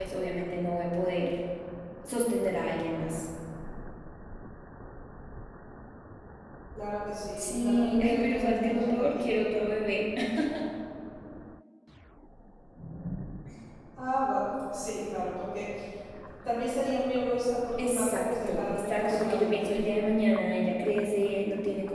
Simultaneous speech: Yes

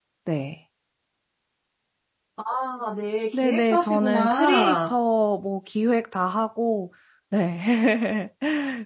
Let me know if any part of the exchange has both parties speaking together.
Yes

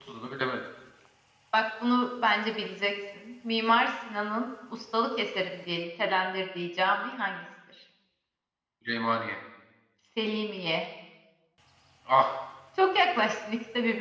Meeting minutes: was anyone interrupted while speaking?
No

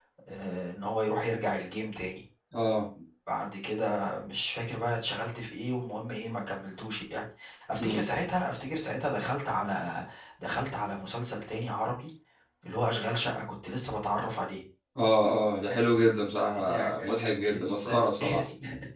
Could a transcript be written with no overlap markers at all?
No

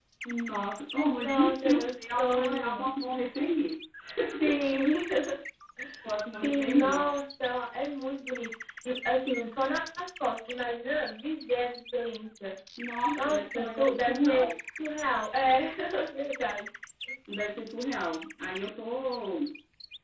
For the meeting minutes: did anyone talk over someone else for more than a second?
Yes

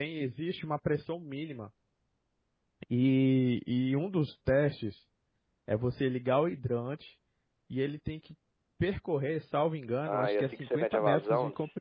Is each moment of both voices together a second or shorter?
No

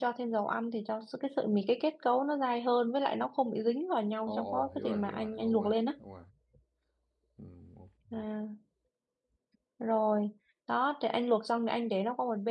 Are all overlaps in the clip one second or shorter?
No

